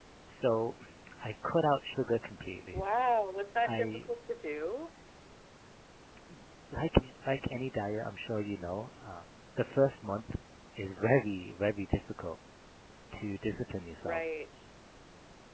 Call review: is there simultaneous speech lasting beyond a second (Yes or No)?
No